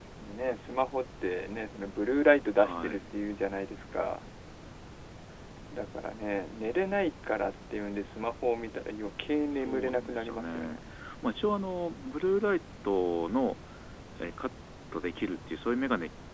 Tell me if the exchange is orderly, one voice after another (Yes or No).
No